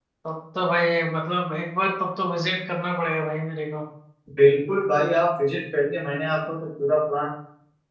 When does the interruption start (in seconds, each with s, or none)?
none